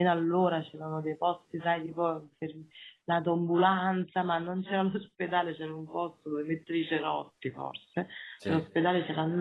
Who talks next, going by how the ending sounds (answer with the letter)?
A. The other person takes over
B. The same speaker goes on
B